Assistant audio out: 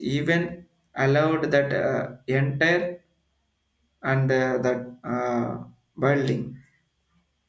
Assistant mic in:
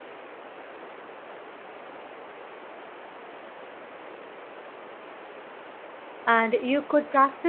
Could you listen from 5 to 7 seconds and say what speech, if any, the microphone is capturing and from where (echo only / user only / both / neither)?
user only